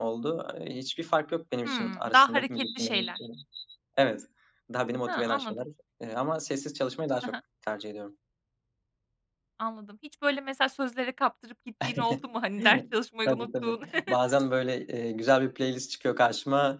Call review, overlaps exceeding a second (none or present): present